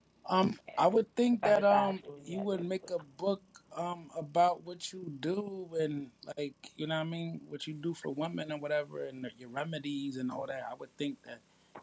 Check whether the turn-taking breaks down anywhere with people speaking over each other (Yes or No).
Yes